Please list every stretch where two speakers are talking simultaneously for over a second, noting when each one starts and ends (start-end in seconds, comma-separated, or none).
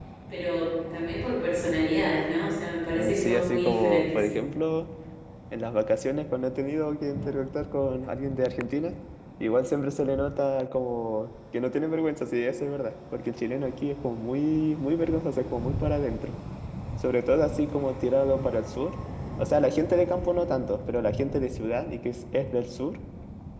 3.0-4.2